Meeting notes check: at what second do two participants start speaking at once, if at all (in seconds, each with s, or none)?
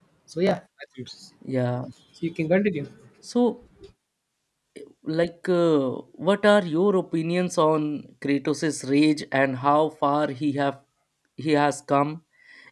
none